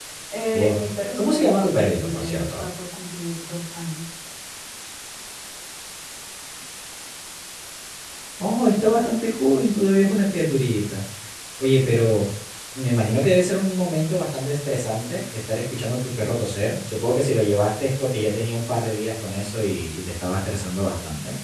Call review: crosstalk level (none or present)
present